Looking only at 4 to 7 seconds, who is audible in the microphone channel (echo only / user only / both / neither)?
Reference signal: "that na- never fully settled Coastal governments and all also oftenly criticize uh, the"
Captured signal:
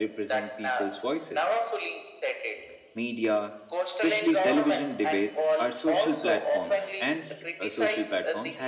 both